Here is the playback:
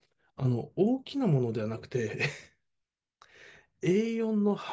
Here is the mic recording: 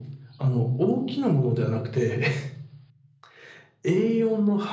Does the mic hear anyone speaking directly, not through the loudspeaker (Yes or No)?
No